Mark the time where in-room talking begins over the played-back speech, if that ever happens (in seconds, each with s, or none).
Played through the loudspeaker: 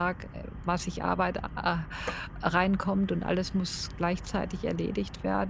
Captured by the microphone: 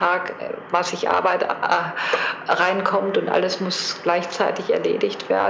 none